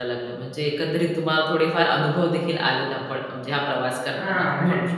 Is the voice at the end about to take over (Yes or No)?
Yes